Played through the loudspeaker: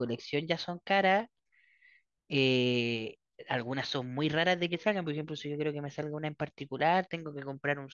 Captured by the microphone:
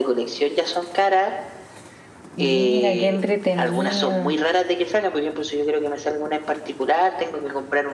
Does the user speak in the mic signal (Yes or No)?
Yes